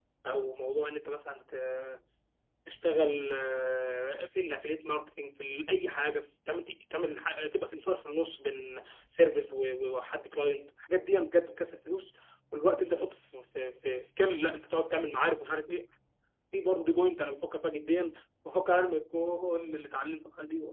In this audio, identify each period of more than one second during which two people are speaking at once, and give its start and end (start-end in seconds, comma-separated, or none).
none